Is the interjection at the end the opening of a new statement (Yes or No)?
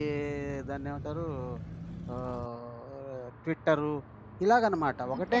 Yes